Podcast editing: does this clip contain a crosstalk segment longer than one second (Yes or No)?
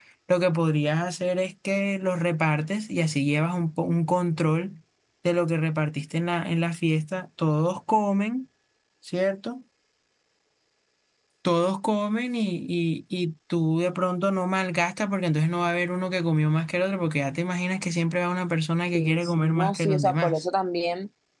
Yes